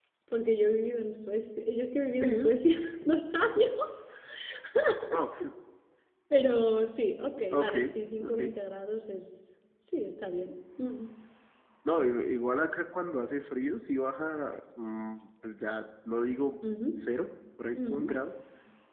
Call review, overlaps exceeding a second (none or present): none